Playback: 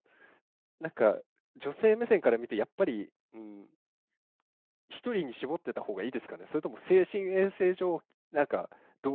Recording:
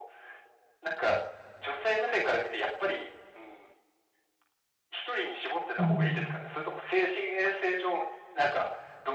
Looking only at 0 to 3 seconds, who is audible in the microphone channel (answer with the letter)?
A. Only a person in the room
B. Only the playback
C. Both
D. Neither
B